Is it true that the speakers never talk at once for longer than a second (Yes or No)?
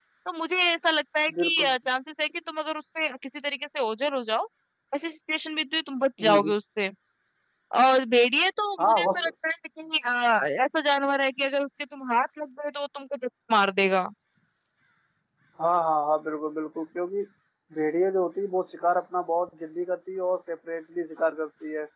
Yes